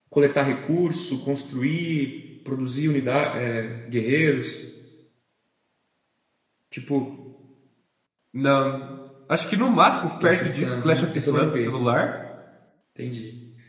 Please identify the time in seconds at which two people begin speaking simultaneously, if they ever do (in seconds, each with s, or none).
10.2 s